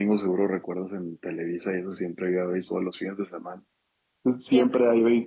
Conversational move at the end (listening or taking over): listening